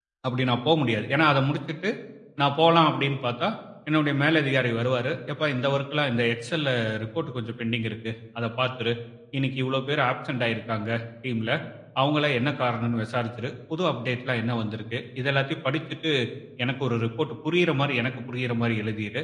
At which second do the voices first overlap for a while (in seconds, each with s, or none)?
none